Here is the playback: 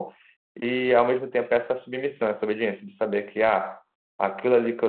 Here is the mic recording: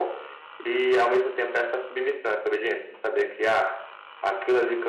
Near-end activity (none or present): none